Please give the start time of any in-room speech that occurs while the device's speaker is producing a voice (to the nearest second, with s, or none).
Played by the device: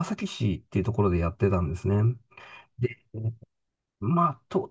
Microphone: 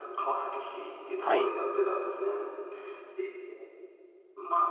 1 s